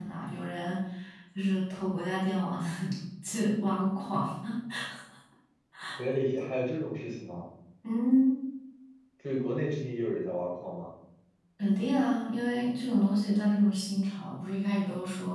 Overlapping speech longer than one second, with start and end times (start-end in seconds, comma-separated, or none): none